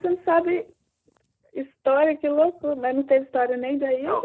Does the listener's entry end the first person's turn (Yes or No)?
Yes